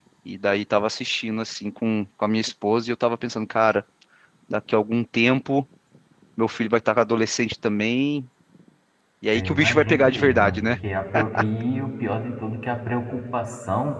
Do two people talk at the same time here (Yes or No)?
Yes